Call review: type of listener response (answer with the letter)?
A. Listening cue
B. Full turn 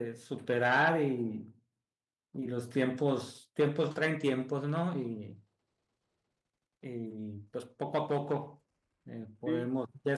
A